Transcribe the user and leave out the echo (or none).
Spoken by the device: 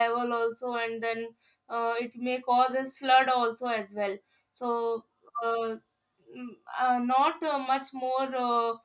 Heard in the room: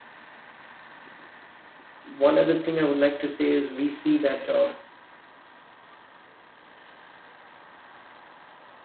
one other thing i would like to say is we see that uh,